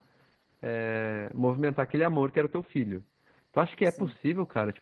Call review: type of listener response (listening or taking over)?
listening